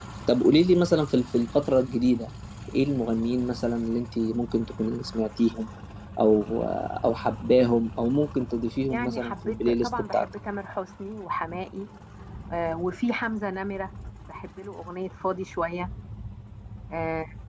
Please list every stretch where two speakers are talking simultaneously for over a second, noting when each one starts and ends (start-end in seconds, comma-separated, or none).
8.9-10.3